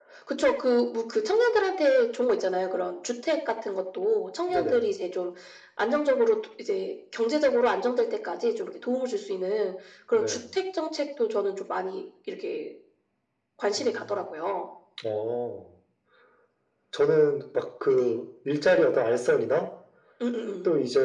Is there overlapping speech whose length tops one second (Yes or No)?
No